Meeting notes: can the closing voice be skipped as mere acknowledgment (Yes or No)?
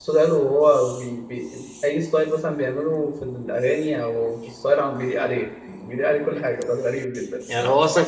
No